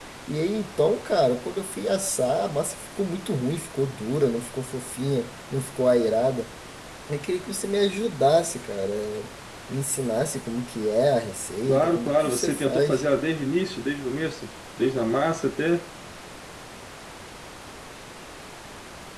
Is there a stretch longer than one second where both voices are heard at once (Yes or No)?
Yes